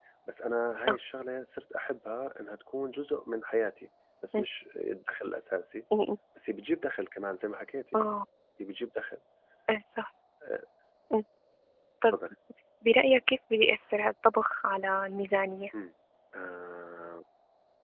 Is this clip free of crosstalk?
Yes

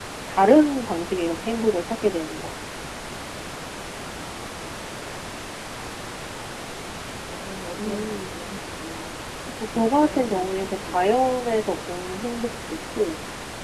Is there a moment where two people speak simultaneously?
Yes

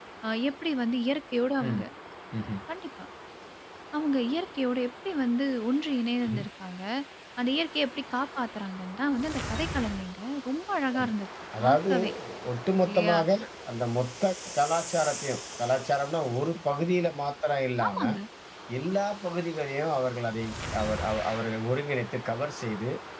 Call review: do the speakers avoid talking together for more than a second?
Yes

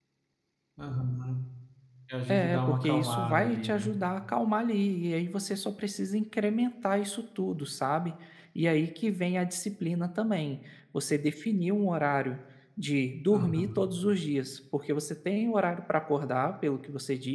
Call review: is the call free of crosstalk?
No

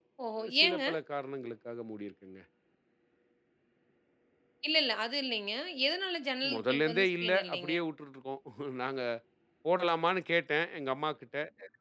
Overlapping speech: Yes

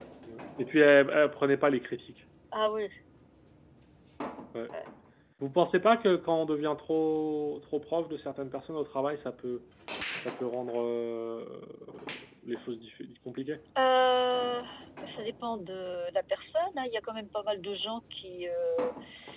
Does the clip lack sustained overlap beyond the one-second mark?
Yes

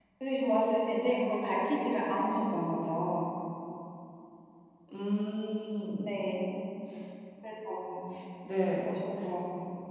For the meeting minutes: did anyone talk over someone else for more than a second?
No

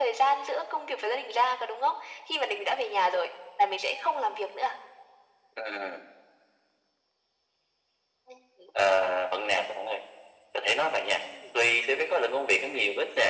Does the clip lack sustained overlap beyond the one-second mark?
Yes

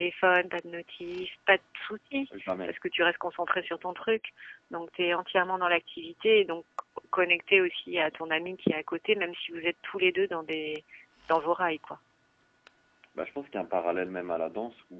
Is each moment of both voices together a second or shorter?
Yes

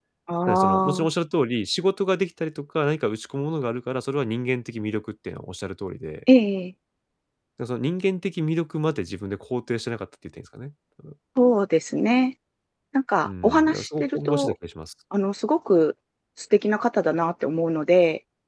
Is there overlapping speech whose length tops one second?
Yes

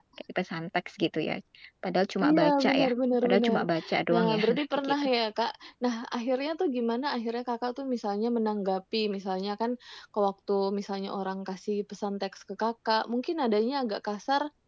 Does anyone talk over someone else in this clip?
Yes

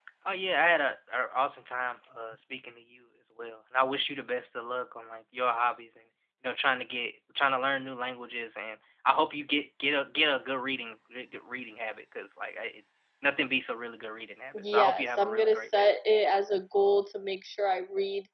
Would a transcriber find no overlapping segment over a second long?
No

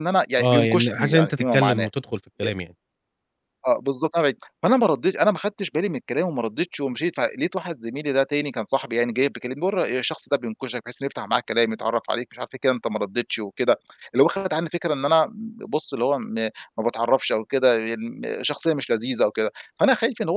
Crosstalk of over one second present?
Yes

